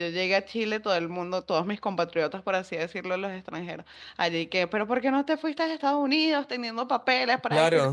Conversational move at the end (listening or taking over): taking over